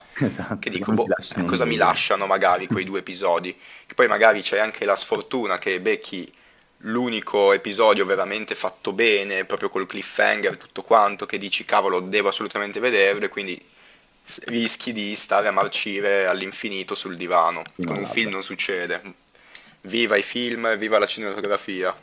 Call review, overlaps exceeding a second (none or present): present